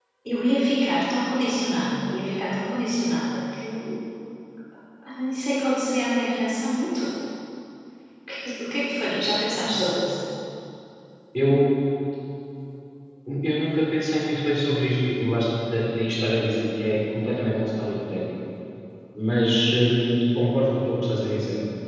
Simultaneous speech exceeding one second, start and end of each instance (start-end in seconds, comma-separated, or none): none